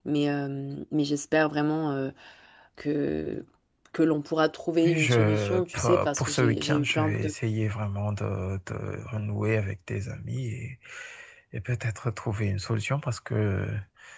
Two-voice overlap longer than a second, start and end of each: 4.8-7.3

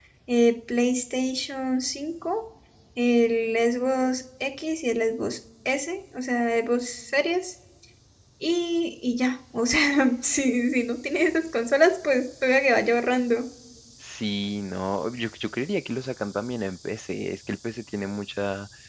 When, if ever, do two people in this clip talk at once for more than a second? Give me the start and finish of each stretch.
none

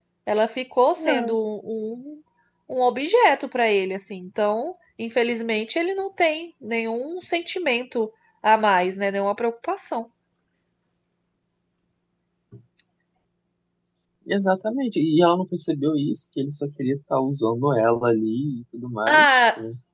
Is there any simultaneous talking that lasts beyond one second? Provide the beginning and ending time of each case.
none

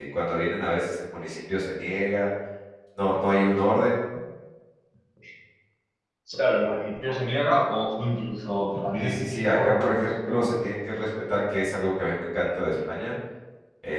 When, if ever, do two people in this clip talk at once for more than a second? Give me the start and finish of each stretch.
9.0-10.5

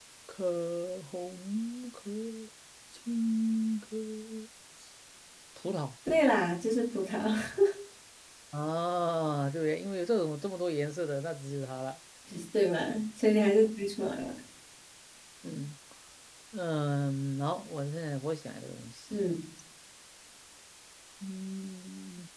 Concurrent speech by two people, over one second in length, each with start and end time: none

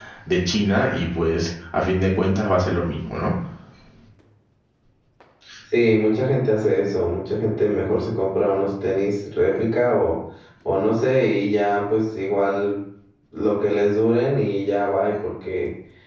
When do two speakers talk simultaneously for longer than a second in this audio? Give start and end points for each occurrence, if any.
none

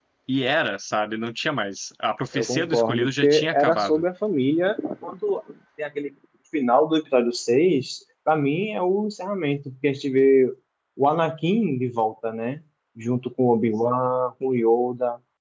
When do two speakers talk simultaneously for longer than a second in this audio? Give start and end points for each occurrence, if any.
2.3-4.0

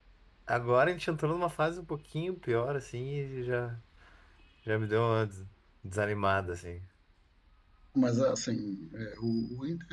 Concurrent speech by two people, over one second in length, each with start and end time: none

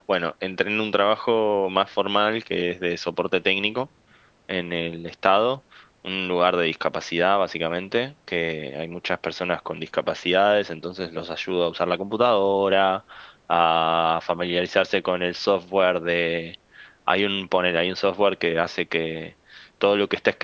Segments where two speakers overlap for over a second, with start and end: none

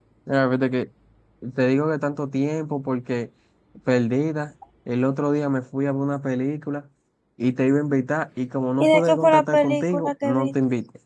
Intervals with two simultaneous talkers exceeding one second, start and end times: 8.8-10.5

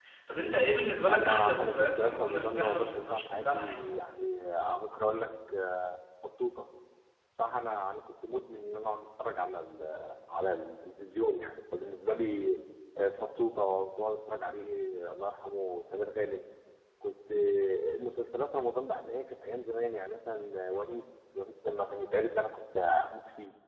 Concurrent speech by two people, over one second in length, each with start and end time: 1.1-3.8

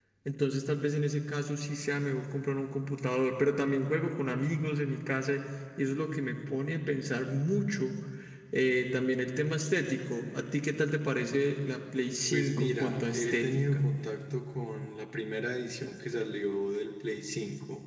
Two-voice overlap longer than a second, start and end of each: 12.3-13.8

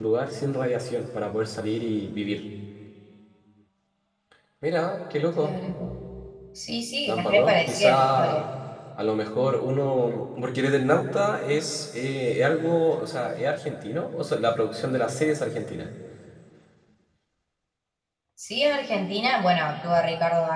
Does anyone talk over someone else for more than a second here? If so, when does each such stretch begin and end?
7.1-8.4

